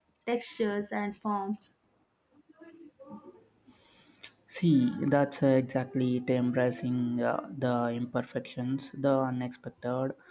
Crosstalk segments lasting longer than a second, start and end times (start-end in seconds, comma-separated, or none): none